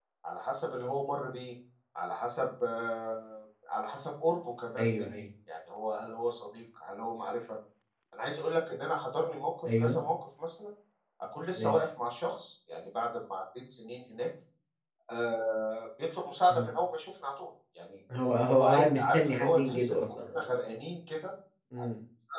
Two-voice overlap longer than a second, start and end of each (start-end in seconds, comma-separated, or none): 18.5-20.4